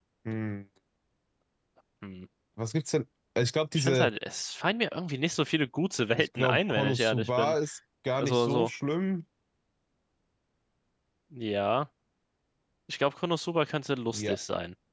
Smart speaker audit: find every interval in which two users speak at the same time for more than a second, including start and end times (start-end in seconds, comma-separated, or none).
6.2-7.6